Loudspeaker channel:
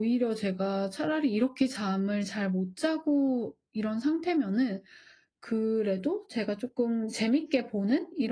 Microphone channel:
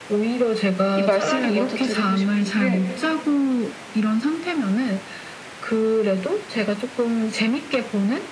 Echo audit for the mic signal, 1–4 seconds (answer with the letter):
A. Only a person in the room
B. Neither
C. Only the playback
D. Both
D